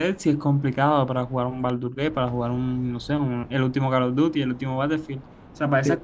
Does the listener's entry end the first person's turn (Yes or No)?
No